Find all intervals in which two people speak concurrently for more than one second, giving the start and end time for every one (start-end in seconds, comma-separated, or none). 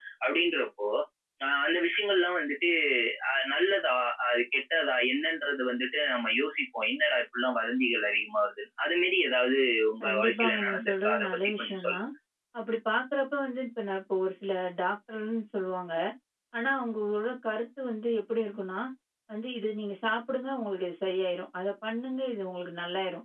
10.0-12.0